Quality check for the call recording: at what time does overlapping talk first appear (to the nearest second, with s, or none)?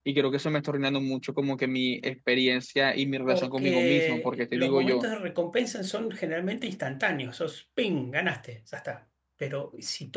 3 s